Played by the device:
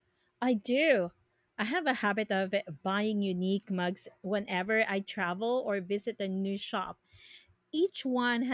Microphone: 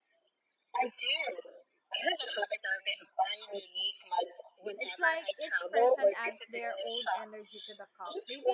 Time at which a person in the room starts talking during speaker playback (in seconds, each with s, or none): 4.8 s